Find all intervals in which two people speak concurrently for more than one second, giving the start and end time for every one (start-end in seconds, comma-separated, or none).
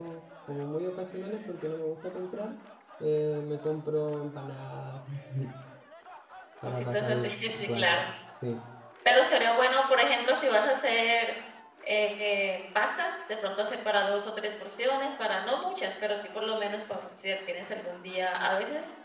6.6-8.0